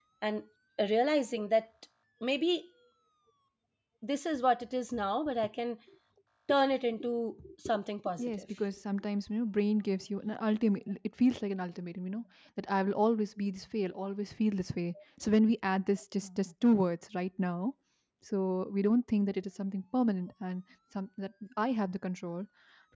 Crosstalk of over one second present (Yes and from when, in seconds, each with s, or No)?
No